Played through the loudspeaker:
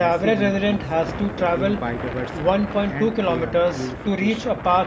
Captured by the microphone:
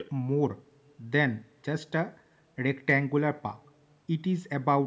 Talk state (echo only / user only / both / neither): user only